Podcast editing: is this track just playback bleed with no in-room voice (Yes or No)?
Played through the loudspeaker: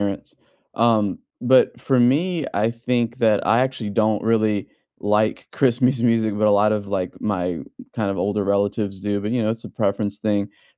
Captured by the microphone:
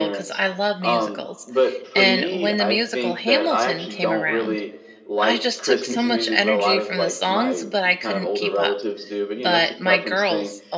No